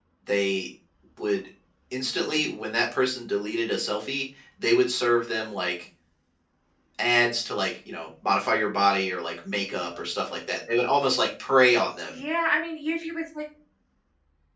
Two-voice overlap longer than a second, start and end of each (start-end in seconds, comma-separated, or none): none